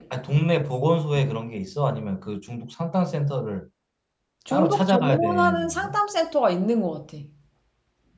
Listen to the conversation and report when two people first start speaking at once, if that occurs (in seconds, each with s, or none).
4.5 s